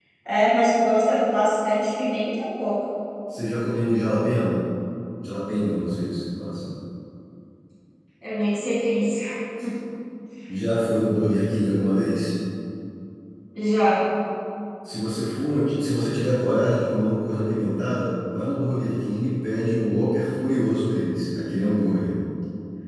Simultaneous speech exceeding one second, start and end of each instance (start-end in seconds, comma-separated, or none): none